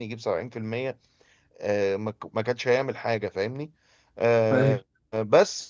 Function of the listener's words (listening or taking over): listening